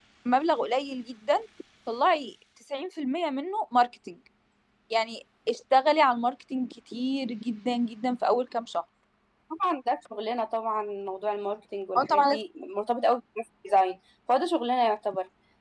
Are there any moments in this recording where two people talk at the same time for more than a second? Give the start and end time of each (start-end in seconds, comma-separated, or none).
none